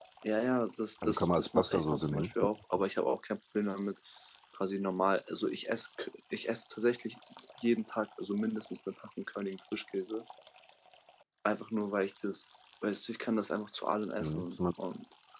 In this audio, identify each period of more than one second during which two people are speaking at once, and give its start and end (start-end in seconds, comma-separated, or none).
1.1-2.3